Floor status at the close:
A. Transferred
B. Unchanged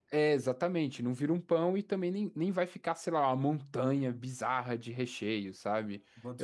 B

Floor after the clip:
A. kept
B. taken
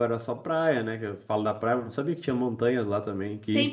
B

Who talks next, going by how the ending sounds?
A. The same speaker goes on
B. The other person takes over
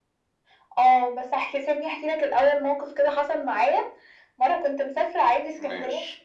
A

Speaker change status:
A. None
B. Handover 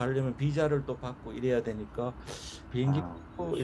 A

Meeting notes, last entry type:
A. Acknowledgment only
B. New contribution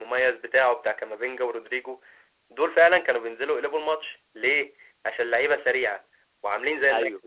A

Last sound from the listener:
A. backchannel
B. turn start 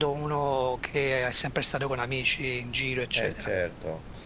B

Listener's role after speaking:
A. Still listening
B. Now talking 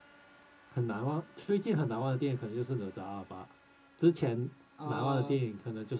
A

